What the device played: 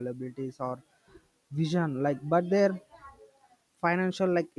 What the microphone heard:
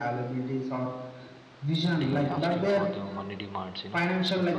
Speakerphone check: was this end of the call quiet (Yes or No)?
No